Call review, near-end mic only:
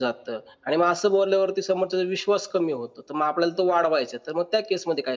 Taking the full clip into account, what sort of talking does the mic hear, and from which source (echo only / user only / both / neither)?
echo only